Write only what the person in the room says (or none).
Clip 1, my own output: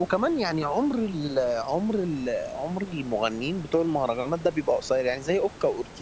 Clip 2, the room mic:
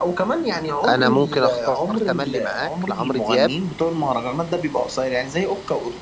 انا ممكن اختار تملي معاك لعمرو دياب